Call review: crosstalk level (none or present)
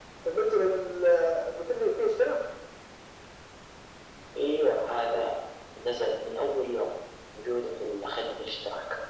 none